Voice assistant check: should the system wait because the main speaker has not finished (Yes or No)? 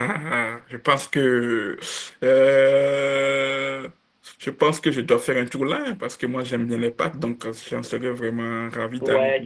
No